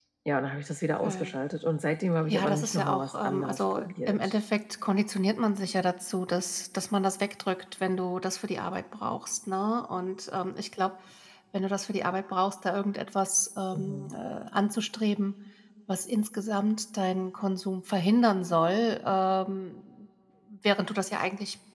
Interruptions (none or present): present